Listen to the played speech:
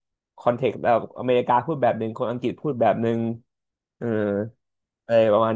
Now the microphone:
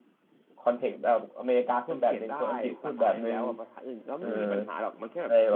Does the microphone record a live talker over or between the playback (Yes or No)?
Yes